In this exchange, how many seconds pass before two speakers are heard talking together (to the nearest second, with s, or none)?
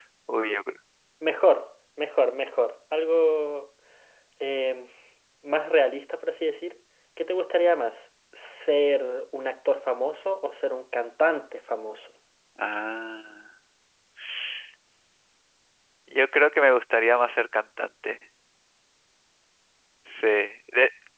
none